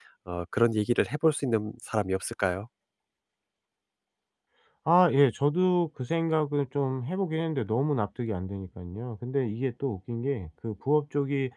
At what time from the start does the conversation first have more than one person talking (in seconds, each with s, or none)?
none